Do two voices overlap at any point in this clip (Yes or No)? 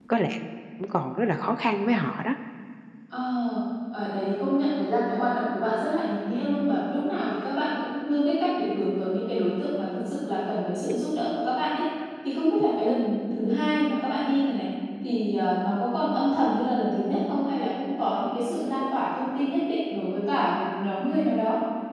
No